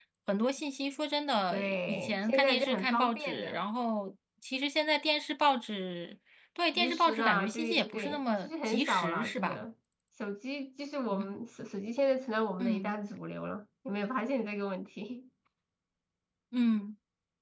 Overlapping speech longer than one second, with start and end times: 1.5-3.6, 6.8-9.6

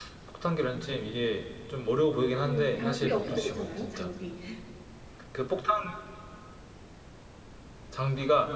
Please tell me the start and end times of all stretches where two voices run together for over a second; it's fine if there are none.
2.4-4.1

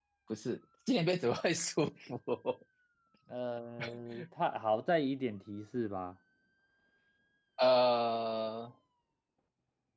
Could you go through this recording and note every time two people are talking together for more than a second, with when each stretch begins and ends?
none

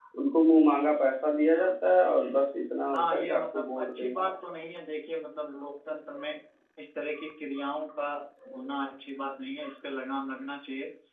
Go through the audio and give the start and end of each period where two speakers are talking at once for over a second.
2.9-4.5

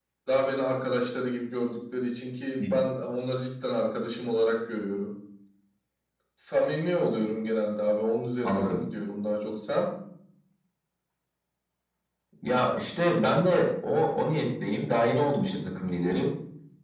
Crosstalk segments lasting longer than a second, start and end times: none

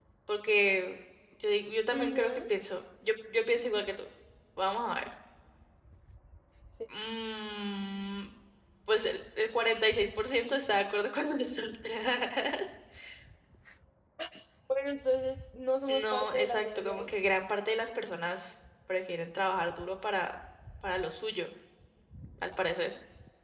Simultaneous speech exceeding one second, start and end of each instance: 15.9-17.1

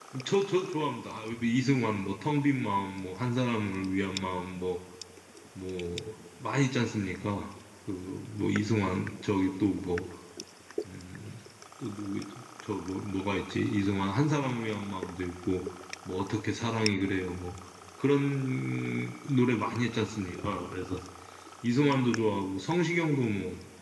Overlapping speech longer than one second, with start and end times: none

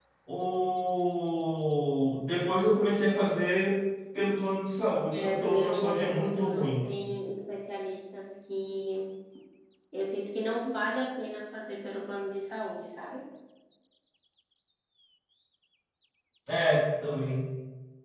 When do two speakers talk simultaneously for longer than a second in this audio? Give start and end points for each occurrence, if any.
5.1-6.9

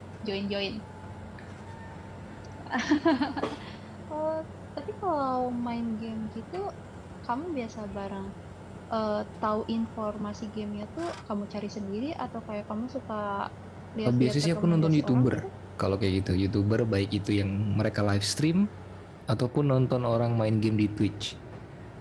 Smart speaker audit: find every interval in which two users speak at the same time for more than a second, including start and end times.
14.1-15.4

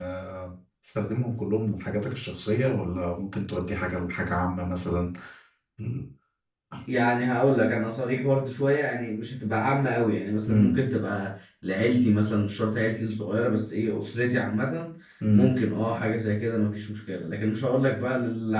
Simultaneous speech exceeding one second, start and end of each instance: none

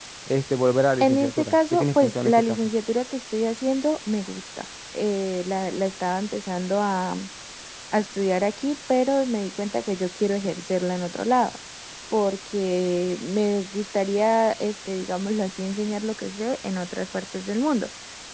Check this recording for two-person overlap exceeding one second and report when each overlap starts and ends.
1.0-2.6

